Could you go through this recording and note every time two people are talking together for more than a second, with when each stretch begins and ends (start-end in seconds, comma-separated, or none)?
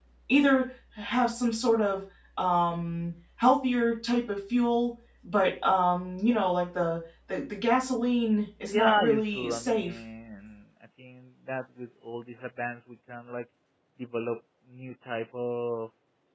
8.7-9.9